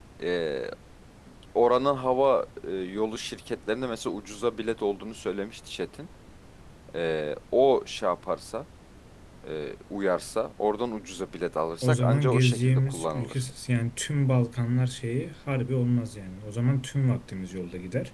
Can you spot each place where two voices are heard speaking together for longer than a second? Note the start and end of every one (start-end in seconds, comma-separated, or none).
11.8-13.4